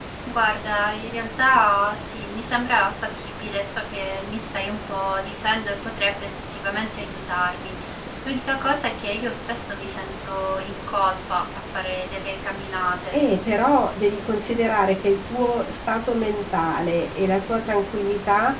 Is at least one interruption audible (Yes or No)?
No